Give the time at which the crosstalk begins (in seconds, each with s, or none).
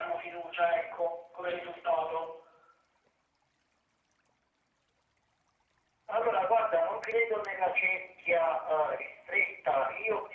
none